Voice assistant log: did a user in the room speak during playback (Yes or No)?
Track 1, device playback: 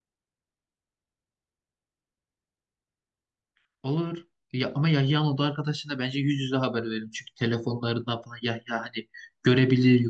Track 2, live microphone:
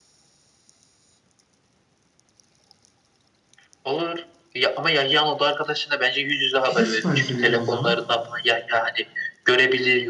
Yes